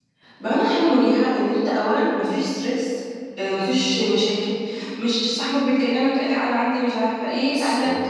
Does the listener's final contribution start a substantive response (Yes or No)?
No